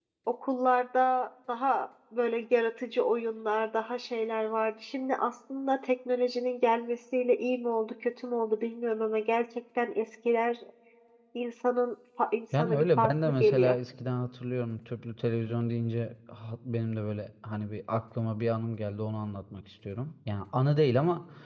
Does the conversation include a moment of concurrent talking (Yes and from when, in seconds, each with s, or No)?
Yes, from 12.5 s